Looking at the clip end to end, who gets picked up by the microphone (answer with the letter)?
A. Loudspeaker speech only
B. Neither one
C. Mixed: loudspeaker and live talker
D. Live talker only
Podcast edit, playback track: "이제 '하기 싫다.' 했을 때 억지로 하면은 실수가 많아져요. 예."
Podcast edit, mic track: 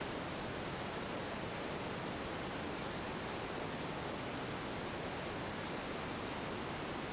B